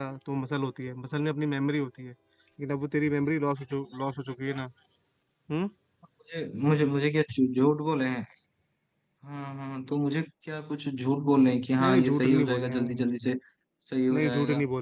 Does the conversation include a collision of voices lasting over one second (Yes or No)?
Yes